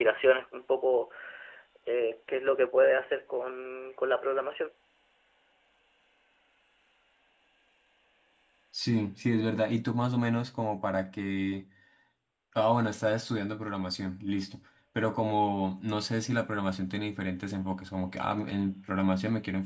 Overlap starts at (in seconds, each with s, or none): none